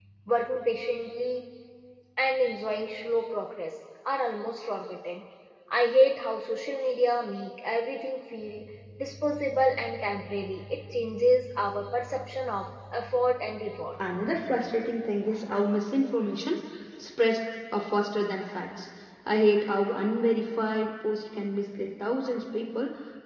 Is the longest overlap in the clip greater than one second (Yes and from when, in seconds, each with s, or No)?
No